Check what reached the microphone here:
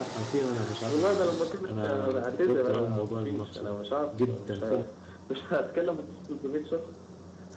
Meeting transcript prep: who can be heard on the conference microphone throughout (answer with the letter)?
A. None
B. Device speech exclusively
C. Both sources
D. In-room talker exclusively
C